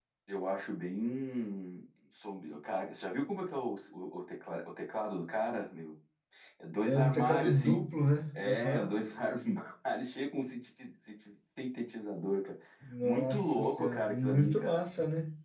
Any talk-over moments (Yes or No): Yes